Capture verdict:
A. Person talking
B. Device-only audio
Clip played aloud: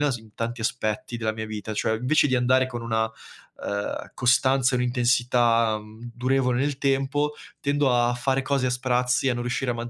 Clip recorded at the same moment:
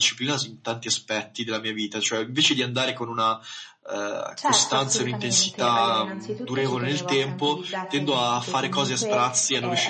A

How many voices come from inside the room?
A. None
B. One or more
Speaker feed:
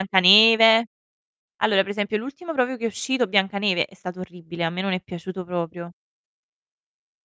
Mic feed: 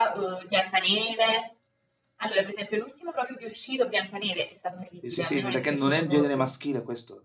B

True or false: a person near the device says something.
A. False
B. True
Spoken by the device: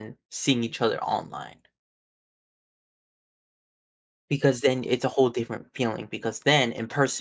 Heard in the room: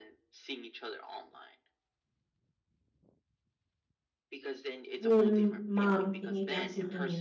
B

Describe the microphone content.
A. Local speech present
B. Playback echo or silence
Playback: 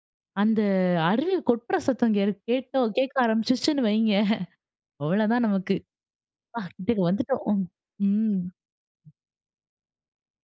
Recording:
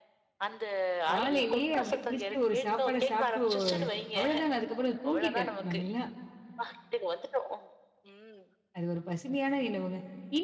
A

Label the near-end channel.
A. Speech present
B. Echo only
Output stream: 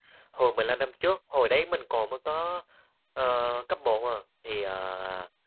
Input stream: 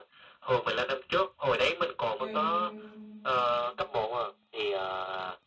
A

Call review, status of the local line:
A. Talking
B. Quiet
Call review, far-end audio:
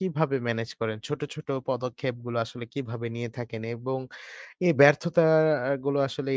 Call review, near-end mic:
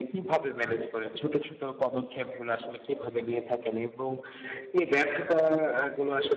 B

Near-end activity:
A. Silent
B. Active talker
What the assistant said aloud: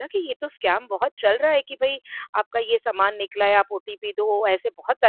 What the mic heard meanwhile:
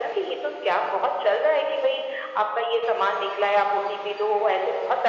A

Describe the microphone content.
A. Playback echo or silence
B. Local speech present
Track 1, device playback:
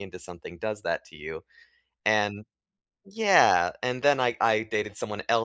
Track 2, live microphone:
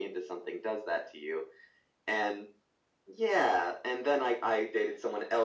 A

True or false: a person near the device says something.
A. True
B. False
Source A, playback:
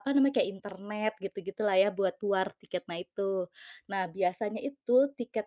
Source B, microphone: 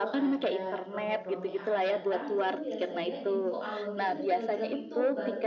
A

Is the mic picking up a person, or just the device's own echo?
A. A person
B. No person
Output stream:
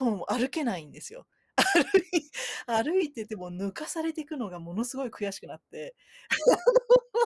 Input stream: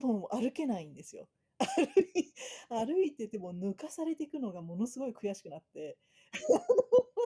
B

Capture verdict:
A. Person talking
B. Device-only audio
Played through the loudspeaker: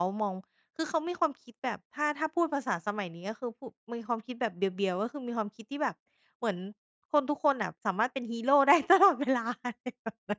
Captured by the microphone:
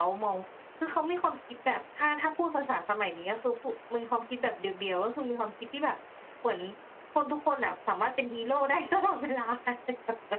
B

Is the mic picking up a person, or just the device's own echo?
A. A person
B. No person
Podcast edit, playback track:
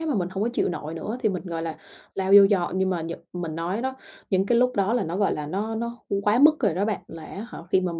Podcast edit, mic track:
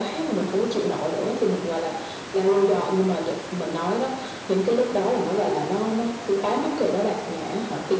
B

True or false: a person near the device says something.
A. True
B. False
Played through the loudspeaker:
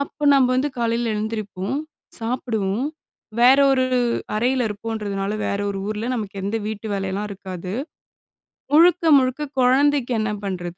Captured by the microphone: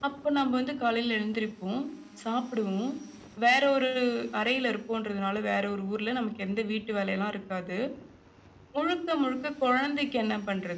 B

